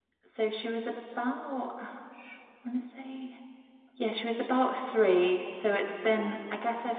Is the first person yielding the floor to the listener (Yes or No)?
No